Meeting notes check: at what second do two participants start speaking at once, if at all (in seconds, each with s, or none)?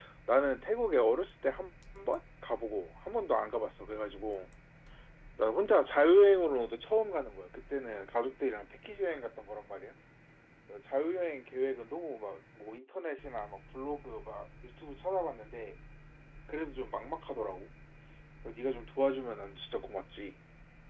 none